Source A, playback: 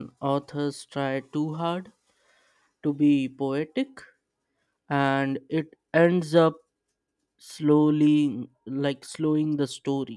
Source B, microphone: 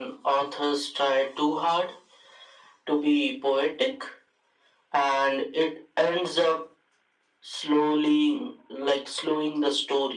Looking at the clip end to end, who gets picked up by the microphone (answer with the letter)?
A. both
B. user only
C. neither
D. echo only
D